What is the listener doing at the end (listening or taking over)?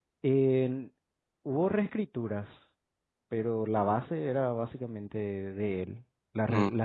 listening